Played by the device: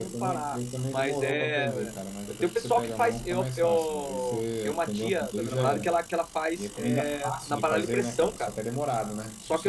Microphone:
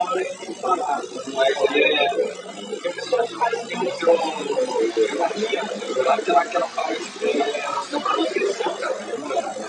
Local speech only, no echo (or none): none